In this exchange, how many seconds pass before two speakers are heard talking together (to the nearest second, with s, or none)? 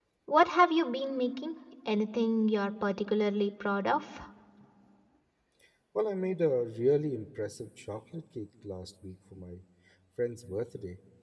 none